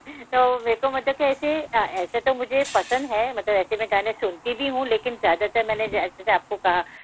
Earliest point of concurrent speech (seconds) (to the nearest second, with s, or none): none